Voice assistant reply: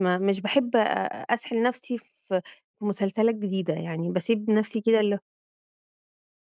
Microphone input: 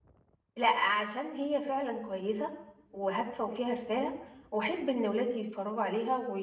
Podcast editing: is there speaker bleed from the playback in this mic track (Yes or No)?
No